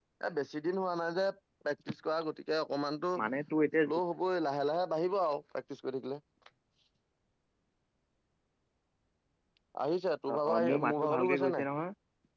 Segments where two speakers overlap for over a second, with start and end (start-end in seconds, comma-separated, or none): 10.3-11.7